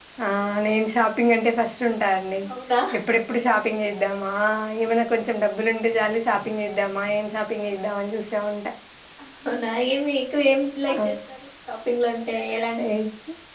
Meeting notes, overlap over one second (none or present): none